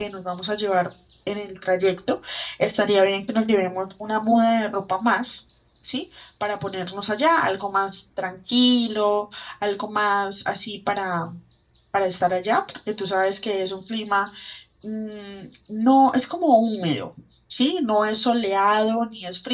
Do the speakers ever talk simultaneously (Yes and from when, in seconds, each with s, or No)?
No